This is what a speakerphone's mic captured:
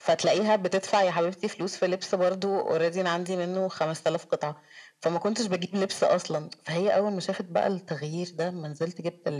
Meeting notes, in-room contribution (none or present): none